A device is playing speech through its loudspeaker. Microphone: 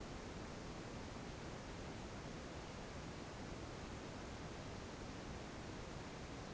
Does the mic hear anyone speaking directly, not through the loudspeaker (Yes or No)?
No